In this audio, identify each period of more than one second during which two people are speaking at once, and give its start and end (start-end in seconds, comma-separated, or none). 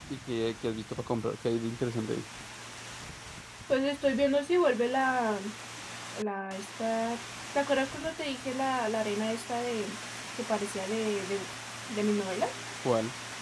none